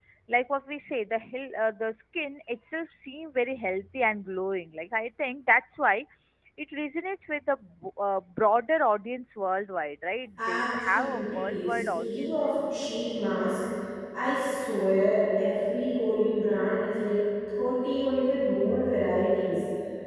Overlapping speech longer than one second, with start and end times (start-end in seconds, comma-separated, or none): 10.4-12.5